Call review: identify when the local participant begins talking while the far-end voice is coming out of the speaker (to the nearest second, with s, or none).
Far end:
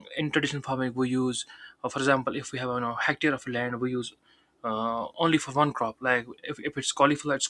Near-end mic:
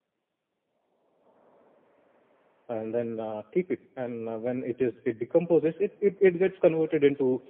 3 s